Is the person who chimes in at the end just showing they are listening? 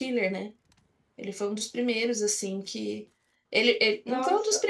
Yes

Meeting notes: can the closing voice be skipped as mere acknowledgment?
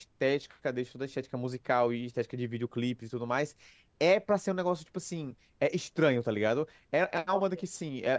Yes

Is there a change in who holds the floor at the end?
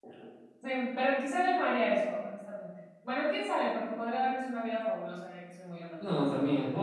Yes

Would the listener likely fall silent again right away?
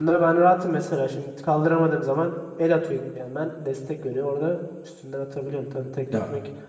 No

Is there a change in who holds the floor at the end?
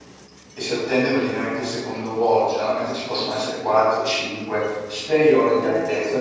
No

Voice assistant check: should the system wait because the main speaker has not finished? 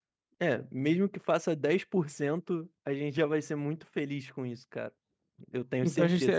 No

